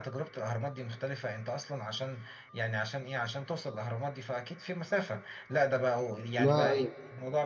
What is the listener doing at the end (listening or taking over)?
listening